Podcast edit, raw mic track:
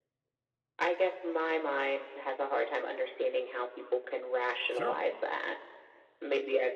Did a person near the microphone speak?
Yes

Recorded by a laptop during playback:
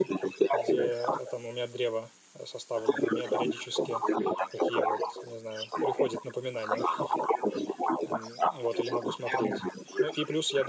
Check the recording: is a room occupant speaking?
Yes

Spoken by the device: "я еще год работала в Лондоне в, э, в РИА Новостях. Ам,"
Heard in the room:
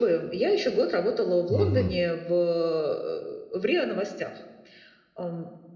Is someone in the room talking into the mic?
Yes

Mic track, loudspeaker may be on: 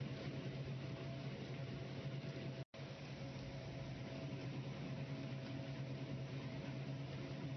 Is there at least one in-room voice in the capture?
No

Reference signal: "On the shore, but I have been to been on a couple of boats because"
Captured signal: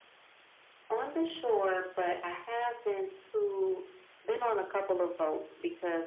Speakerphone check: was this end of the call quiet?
Yes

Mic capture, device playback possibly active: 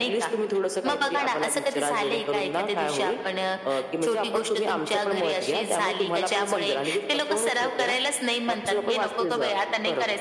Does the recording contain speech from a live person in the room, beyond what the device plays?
No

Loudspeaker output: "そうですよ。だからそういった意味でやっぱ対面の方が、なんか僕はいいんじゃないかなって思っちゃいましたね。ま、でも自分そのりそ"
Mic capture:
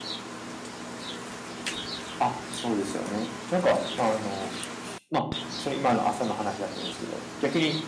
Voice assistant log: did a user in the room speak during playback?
Yes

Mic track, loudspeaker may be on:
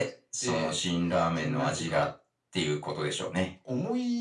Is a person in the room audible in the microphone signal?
No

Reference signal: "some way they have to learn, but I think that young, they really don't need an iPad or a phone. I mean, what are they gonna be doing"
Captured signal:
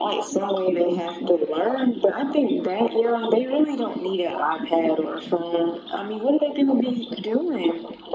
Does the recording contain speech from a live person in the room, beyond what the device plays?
No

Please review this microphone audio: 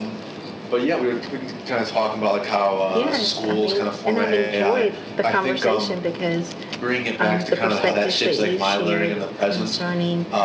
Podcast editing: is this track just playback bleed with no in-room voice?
No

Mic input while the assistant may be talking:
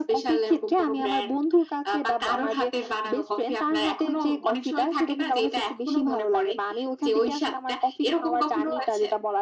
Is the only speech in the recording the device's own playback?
Yes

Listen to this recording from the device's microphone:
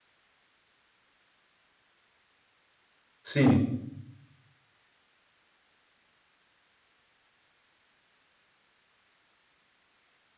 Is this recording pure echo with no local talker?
No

